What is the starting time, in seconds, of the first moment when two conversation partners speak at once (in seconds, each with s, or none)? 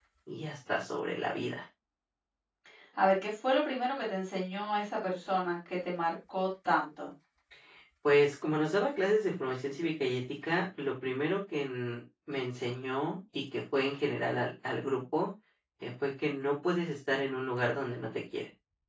none